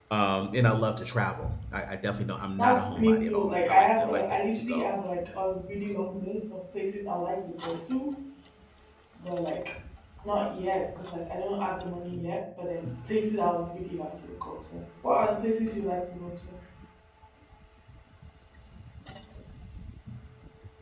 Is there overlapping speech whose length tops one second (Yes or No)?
Yes